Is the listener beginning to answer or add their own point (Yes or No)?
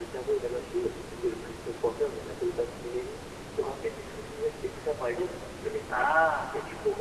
No